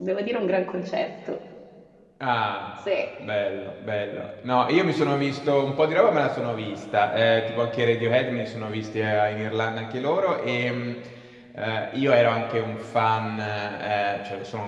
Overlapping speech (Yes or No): No